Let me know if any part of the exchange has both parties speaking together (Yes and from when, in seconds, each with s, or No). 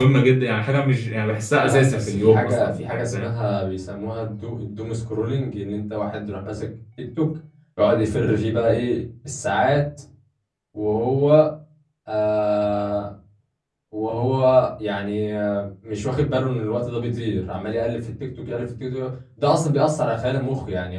Yes, from 1.6 s